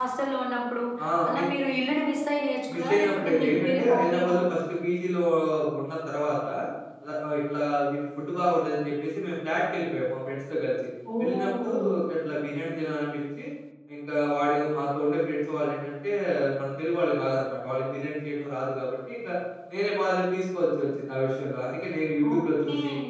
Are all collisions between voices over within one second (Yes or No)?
No